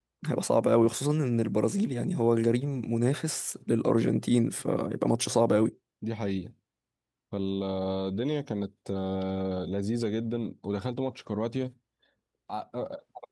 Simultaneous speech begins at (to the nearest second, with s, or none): none